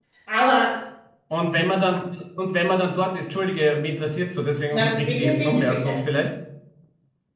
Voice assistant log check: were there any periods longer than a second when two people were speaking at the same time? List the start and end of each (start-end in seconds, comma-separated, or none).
4.7-6.0